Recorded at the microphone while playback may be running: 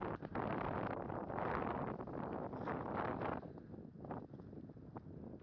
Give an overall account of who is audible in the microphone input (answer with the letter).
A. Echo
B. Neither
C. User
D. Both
B